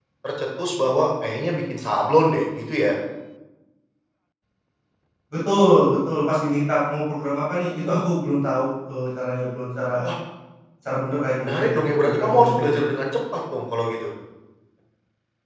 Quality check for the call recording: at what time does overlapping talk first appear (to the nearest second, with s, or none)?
11 s